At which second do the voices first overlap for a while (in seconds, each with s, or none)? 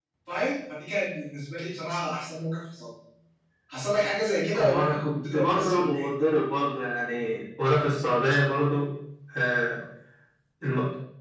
4.5 s